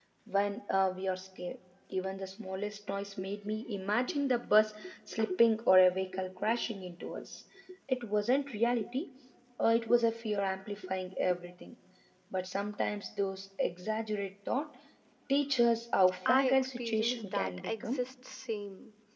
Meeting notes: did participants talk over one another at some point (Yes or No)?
Yes